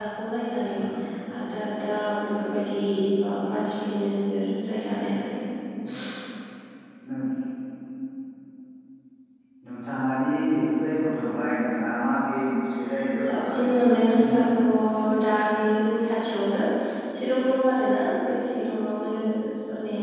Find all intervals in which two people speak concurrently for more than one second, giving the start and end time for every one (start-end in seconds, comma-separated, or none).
13.2-14.6